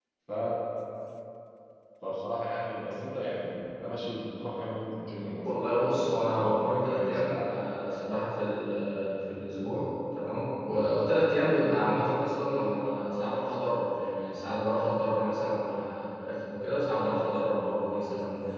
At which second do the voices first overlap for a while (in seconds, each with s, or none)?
5.5 s